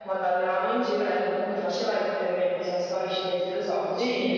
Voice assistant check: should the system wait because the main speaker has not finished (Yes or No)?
Yes